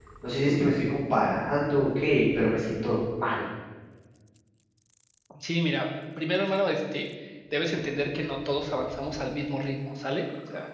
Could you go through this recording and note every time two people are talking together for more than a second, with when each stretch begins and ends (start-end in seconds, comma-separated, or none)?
none